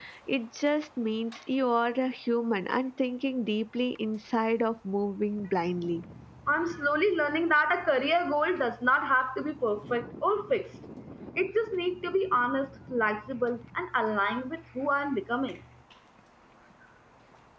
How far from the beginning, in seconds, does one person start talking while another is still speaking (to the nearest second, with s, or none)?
none